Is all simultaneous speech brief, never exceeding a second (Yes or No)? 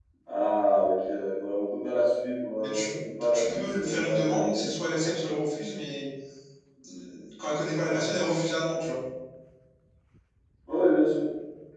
No